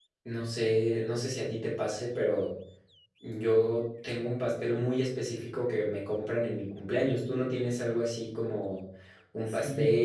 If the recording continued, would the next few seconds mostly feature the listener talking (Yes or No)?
Yes